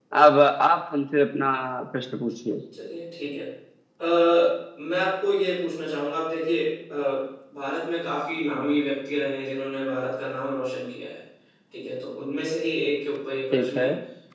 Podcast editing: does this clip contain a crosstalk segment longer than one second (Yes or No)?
No